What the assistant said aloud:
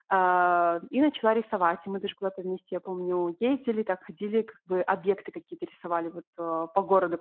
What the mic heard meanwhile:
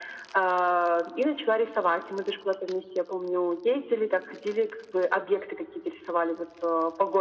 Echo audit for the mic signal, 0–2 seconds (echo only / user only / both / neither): echo only